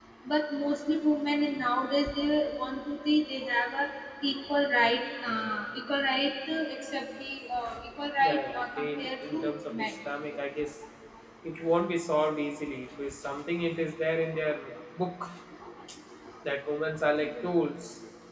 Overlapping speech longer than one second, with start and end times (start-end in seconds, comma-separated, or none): 8.2-9.9